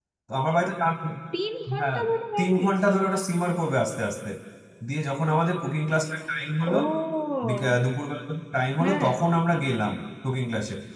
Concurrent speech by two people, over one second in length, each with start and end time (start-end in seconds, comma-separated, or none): none